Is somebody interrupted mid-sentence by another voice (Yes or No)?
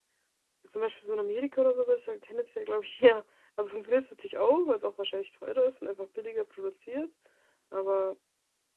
No